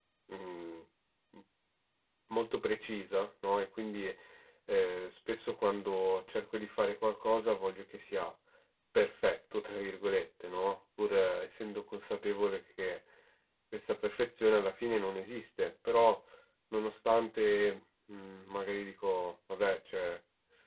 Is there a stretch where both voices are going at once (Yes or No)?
No